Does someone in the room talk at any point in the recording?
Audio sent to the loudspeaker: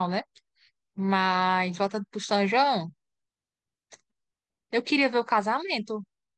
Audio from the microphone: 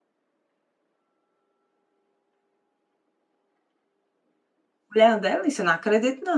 Yes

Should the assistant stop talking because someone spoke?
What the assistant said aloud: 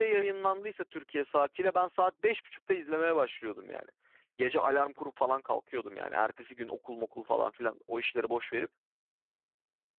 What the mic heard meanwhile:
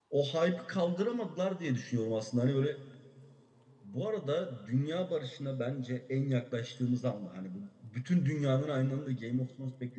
Yes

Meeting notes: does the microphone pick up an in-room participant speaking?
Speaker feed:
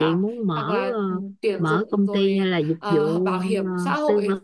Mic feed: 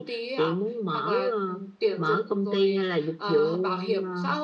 No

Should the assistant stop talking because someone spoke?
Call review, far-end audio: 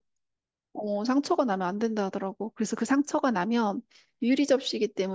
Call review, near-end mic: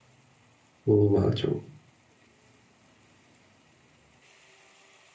Yes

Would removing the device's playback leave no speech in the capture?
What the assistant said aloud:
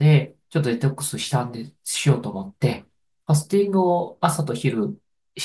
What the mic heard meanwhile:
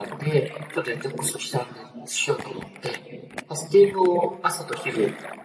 Yes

